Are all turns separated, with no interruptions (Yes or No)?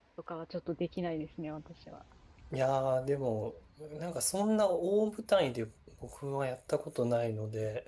Yes